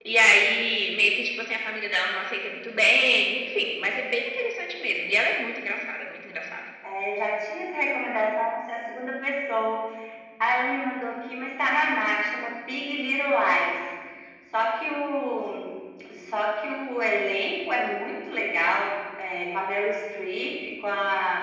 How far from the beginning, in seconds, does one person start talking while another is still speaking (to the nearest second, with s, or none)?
none